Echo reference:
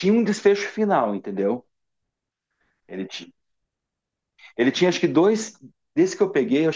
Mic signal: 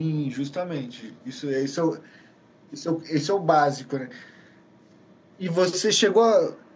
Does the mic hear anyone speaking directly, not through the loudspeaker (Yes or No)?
Yes